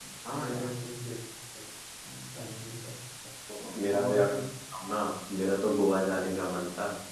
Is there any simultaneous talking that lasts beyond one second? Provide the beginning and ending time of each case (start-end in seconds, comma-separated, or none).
none